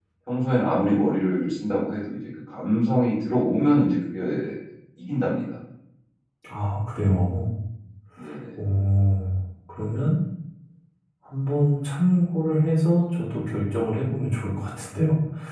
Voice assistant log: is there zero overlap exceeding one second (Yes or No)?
Yes